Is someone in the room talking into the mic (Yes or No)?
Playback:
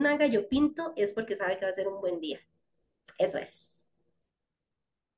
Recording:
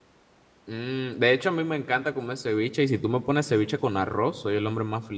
Yes